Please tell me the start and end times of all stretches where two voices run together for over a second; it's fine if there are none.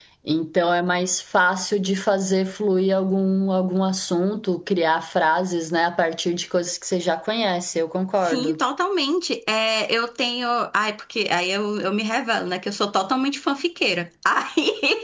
none

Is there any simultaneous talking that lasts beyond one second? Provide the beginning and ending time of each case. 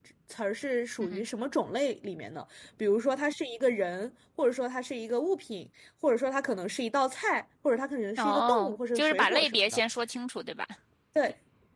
8.2-9.8

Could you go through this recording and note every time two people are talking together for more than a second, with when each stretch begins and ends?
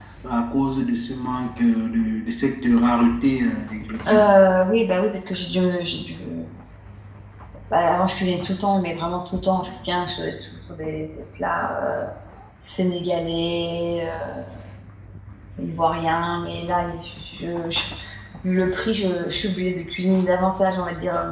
none

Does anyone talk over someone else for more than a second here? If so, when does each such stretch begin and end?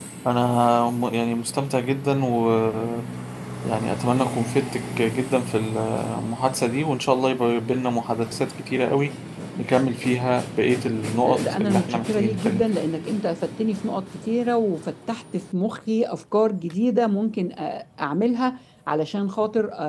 11.2-12.6

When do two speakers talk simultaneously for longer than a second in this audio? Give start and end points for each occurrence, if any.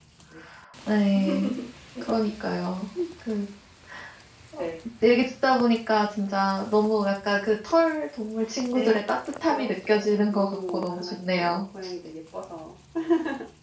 9.5-11.6

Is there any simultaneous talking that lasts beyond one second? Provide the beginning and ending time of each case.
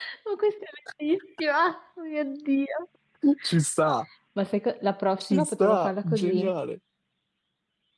5.2-6.5

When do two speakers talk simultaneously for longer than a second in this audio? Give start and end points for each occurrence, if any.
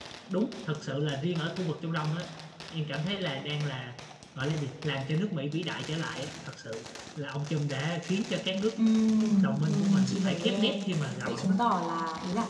9.4-10.8

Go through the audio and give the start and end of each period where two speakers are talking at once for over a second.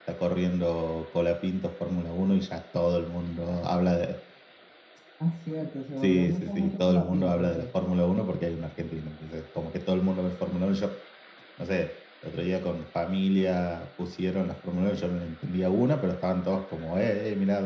6.0-7.8

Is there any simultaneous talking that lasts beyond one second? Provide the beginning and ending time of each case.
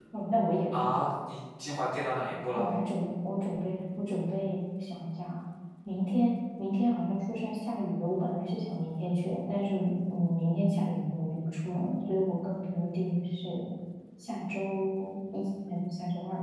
none

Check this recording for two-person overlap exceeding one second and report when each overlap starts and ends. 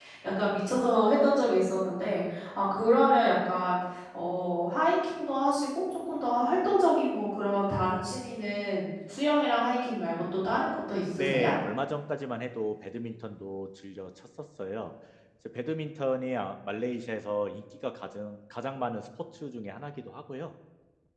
none

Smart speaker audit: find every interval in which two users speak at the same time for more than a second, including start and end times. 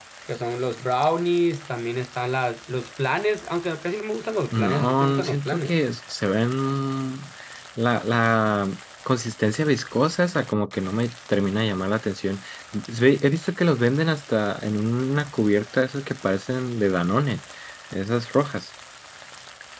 4.5-5.8

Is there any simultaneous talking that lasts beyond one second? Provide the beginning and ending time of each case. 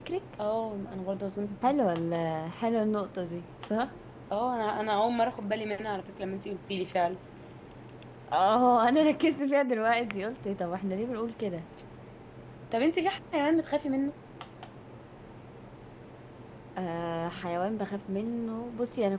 none

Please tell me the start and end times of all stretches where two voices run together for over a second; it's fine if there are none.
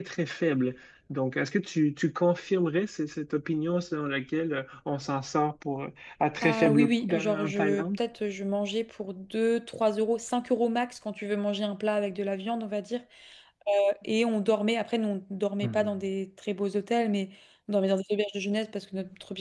6.4-8.0

